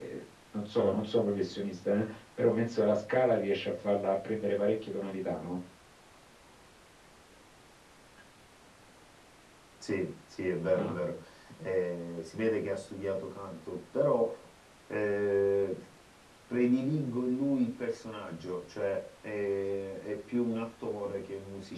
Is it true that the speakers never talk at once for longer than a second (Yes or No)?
Yes